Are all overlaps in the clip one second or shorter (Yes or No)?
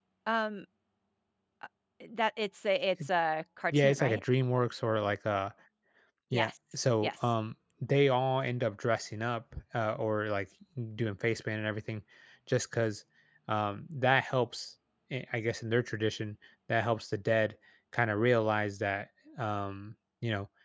Yes